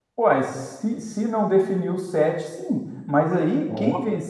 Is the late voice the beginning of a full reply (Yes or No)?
No